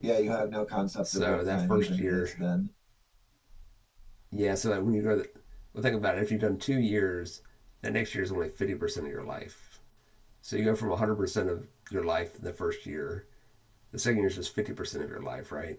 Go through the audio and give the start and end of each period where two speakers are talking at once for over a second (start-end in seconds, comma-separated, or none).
1.0-2.3